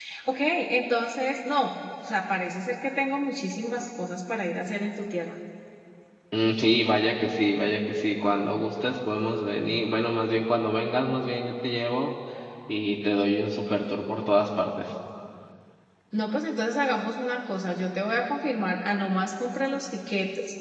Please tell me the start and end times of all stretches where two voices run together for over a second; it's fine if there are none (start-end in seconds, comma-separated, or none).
none